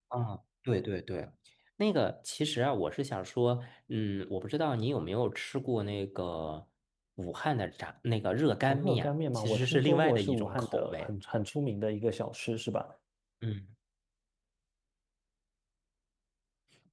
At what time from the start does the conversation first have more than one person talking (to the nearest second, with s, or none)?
9 s